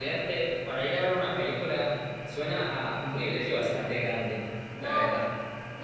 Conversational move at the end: taking over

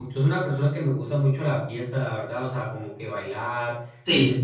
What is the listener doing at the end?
listening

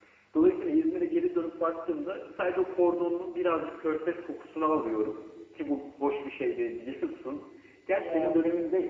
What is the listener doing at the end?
listening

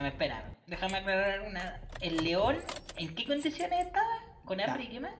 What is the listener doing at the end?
taking over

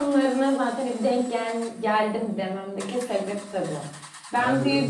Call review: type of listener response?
taking over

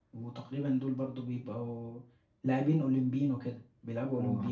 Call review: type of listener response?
taking over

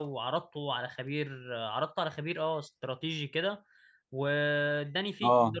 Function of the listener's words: listening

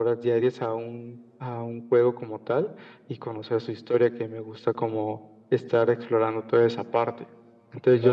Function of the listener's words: taking over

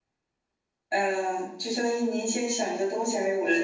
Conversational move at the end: taking over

